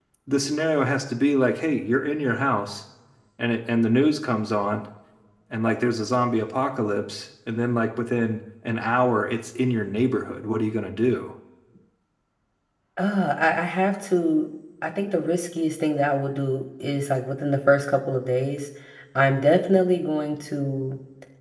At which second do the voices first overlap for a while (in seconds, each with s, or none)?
none